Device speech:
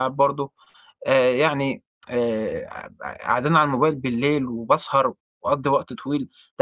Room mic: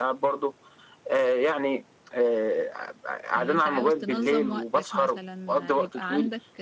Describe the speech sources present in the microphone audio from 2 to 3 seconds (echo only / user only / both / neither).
echo only